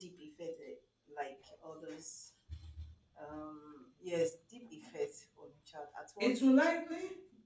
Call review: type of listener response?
taking over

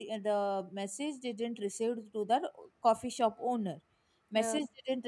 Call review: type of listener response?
listening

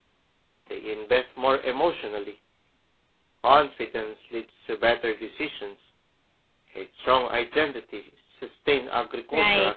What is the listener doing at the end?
taking over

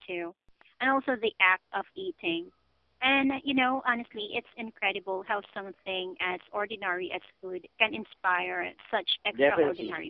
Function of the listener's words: taking over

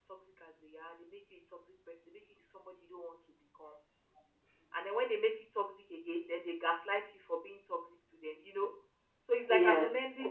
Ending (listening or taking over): listening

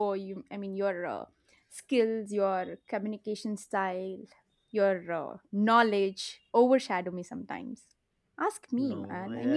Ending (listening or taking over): taking over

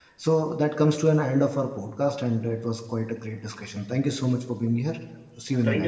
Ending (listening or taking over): taking over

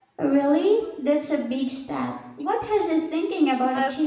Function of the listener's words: taking over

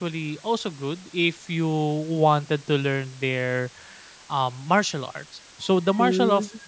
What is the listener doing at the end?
listening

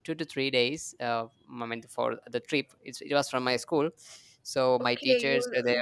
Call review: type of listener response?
taking over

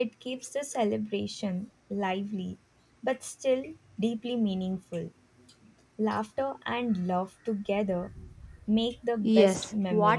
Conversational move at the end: taking over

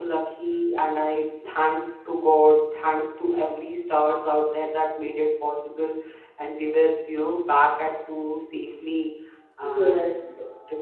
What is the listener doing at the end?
listening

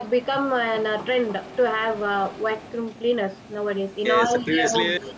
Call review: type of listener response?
taking over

